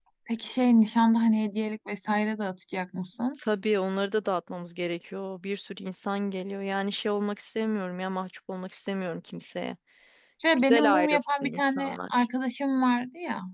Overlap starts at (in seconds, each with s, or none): 10.7 s